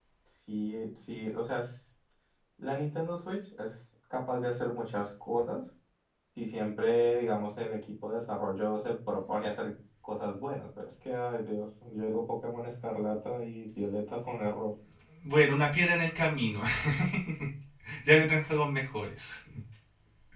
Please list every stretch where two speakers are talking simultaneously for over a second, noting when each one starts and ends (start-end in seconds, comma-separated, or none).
none